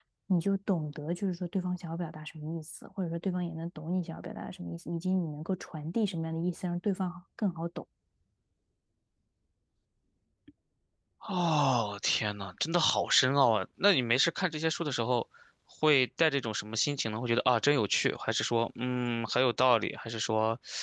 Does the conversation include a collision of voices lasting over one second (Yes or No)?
No